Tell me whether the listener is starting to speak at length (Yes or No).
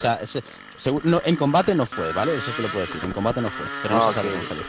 Yes